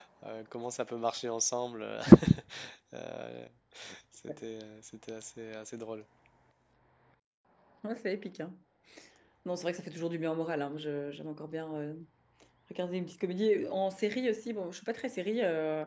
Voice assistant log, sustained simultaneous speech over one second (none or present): none